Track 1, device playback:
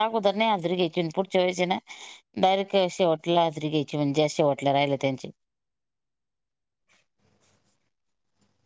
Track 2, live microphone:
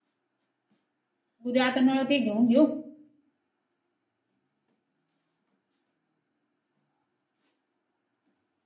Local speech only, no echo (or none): उद्या आता नळ ते घेऊन देऊ.